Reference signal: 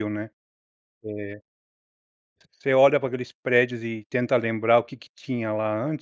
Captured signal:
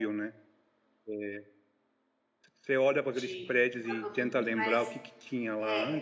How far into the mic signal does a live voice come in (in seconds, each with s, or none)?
3.1 s